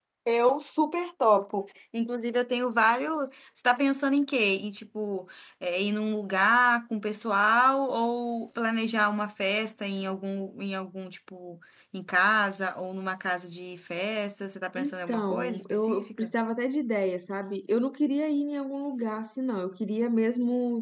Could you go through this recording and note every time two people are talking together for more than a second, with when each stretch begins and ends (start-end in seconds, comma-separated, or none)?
14.8-16.3